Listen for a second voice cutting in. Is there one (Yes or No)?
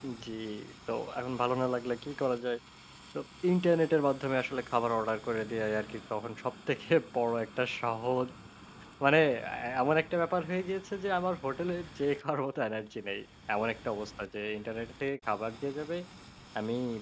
No